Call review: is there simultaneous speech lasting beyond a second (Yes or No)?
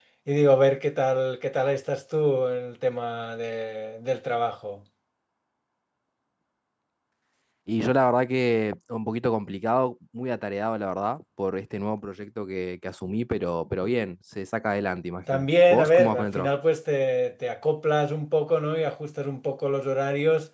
Yes